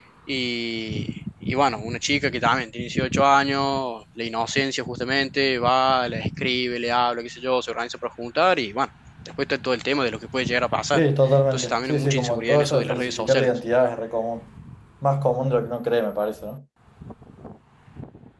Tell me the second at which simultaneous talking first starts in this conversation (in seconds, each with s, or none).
10.9 s